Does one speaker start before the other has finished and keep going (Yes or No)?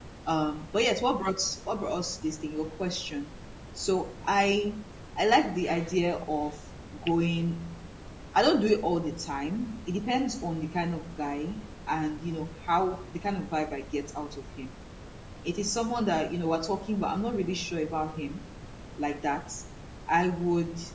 No